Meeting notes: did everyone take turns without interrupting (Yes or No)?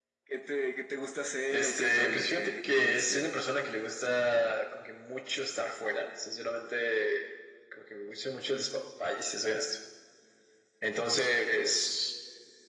No